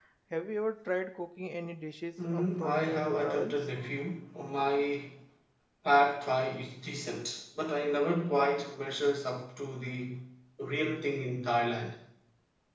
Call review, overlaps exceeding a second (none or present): present